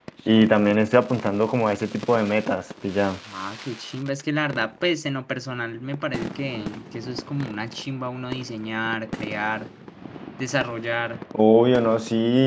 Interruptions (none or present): none